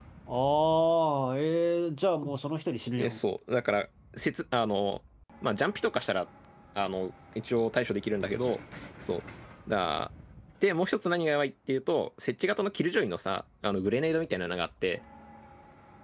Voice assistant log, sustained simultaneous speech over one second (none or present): none